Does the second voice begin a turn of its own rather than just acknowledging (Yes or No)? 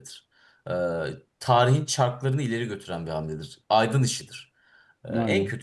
No